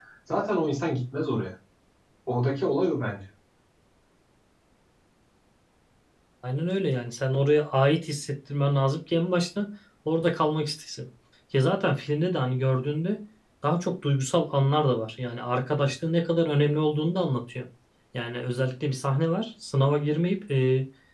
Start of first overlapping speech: none

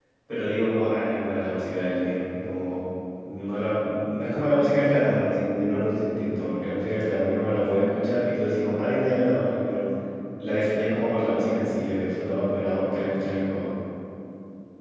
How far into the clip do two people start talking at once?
none

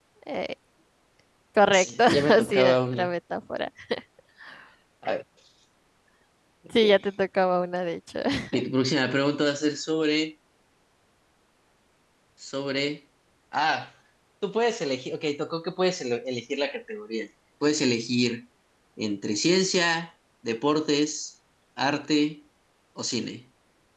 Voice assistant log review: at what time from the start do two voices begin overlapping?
1.7 s

